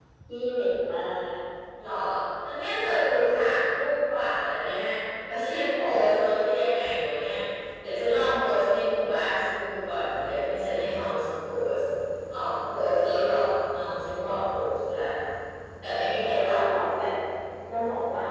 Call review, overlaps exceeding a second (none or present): none